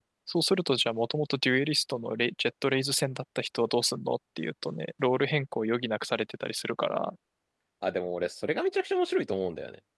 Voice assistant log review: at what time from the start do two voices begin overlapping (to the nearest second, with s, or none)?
none